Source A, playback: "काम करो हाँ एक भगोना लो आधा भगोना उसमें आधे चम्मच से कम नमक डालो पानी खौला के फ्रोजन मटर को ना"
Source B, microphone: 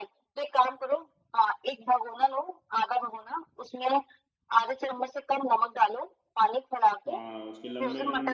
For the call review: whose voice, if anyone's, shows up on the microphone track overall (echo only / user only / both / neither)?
both